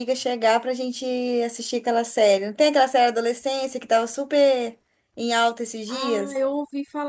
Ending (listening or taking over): taking over